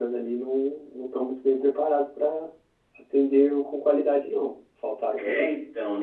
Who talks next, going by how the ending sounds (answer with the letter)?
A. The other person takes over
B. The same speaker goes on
A